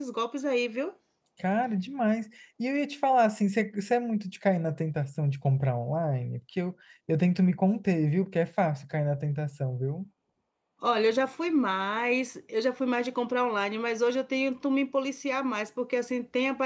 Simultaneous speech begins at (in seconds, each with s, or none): none